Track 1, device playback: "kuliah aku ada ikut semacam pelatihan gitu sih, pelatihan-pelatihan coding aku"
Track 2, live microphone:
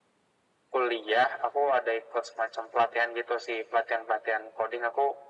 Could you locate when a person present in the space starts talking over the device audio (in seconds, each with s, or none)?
none